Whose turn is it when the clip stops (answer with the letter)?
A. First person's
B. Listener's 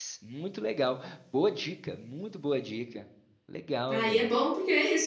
B